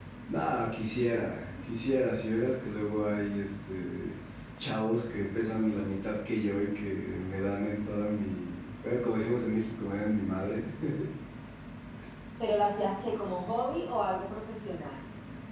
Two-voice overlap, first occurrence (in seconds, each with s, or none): none